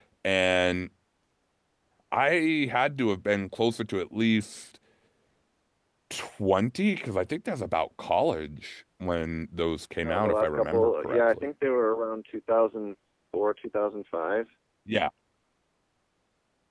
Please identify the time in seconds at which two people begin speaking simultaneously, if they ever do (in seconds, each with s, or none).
10.0 s